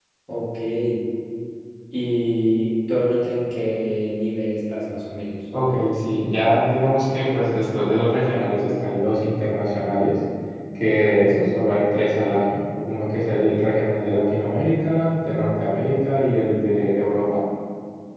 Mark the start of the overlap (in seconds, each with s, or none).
none